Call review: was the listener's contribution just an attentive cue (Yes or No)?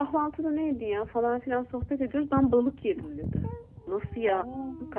Yes